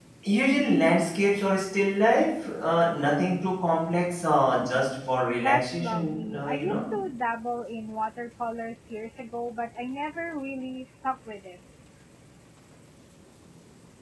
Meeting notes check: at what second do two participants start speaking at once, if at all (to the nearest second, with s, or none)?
5 s